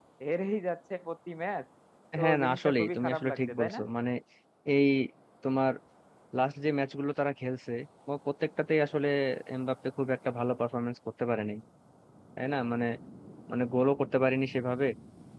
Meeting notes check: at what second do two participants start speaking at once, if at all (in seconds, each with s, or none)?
2.2 s